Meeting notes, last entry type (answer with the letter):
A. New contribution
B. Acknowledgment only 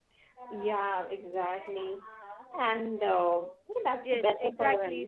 A